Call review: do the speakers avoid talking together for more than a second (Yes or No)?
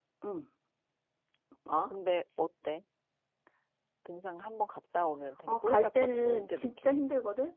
No